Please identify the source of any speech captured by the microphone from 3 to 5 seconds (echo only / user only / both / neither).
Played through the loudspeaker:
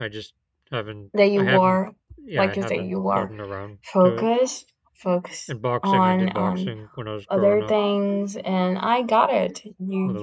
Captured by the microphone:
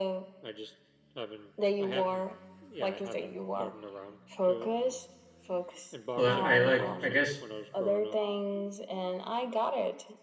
echo only